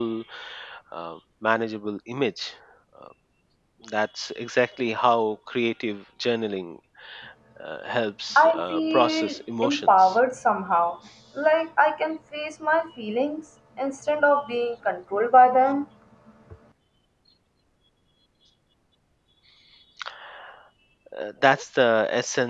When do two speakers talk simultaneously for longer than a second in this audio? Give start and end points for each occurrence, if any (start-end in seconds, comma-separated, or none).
8.4-10.2